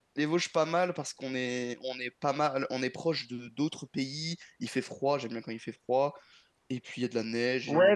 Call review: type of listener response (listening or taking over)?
taking over